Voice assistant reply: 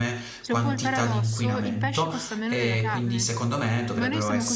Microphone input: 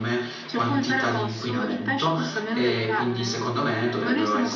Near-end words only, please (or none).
none